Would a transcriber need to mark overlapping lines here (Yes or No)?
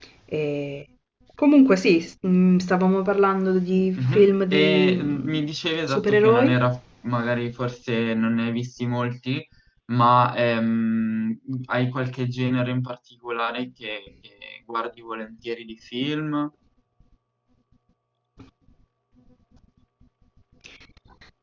Yes